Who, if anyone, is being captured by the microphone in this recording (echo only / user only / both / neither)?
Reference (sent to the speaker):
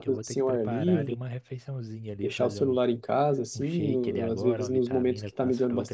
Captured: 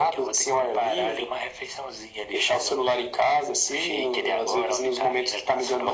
echo only